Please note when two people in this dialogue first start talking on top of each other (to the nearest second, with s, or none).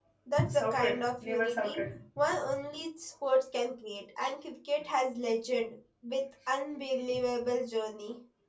1 s